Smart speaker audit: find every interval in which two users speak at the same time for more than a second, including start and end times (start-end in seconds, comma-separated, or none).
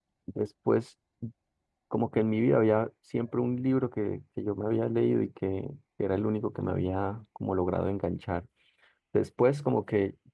none